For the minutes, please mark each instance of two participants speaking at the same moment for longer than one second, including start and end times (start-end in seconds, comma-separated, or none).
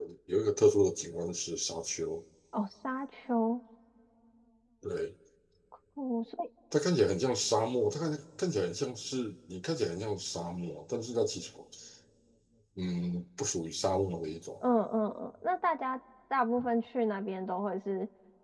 none